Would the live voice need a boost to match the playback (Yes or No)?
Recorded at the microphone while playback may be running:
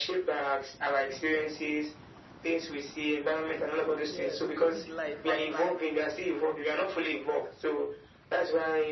Yes